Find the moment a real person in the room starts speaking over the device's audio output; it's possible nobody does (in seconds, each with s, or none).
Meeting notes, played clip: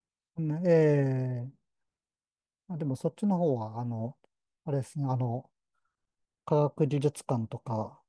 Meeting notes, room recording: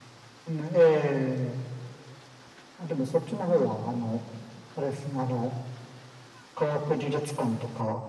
none